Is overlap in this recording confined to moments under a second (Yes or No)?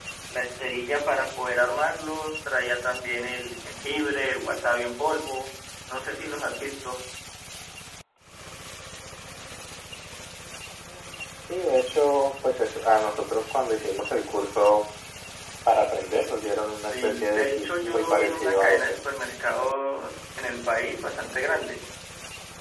No